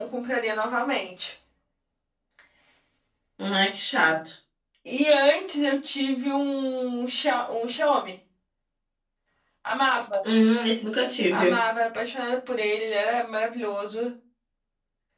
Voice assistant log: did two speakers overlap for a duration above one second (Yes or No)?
No